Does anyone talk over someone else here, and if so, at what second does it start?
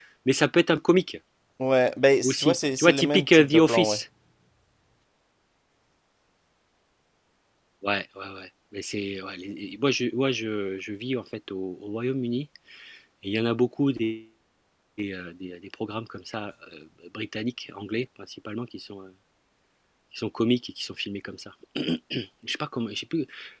2.2 s

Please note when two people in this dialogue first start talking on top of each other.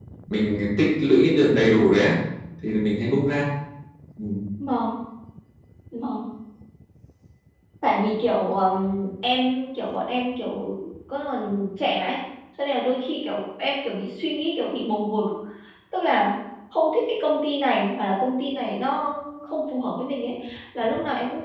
none

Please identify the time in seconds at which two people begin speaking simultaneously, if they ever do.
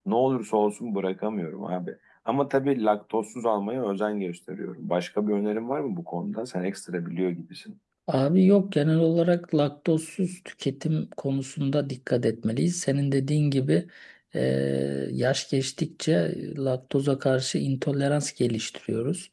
none

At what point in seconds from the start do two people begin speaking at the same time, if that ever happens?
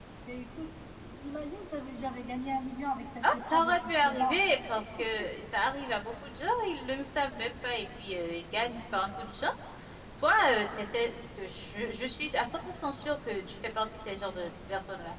3.2 s

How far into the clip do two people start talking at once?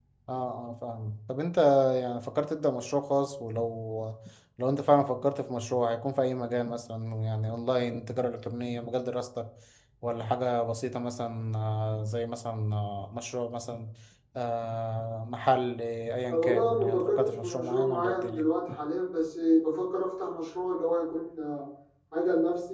16.3 s

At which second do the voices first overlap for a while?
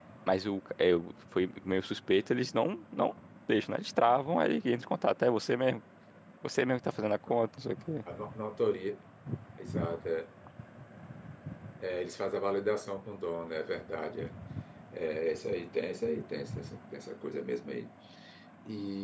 none

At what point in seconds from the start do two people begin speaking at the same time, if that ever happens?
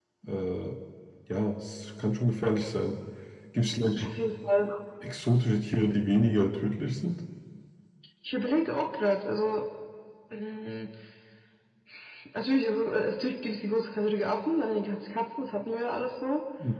none

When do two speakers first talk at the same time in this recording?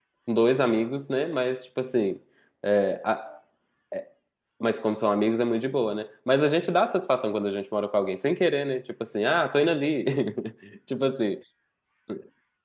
none

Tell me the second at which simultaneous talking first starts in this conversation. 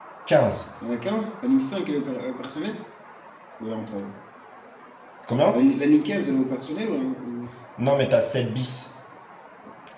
none

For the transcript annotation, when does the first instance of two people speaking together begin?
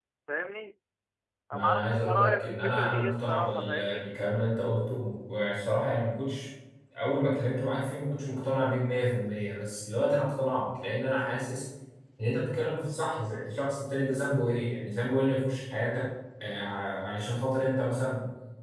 1.5 s

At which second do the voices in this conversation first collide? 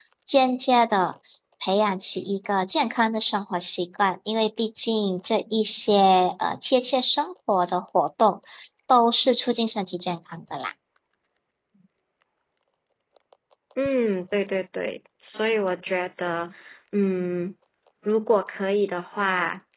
none

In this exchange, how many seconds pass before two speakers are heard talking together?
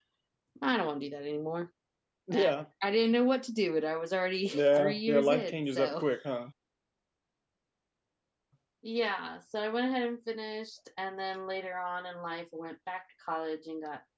4.5 s

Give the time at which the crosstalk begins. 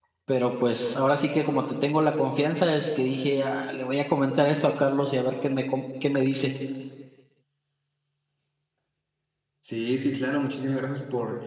none

